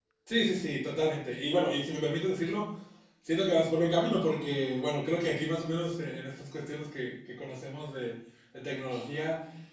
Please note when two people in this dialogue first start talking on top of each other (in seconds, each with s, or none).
none